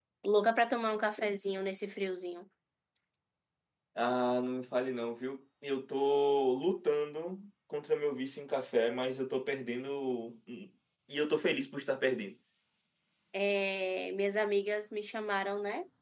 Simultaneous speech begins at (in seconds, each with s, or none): none